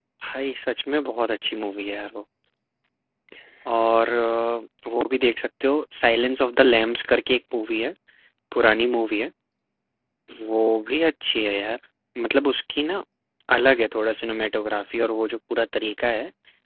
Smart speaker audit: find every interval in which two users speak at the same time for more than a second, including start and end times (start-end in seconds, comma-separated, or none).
none